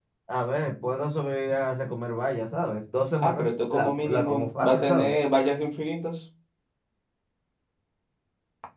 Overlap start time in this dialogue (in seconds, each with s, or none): 3.2 s